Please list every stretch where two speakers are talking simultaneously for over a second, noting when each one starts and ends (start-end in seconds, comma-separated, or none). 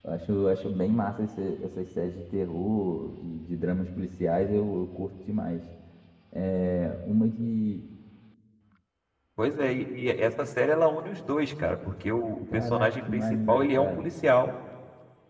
12.5-14.1